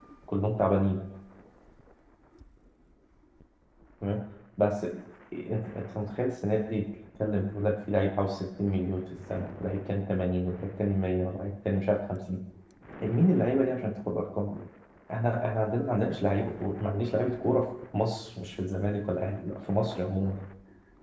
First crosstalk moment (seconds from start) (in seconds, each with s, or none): none